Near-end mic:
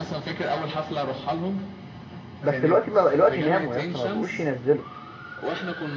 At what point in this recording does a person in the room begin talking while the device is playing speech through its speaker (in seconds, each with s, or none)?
2.4 s